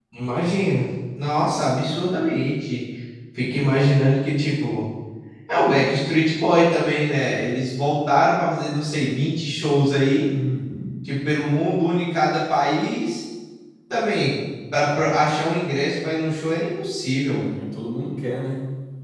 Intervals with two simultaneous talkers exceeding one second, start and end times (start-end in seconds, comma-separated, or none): none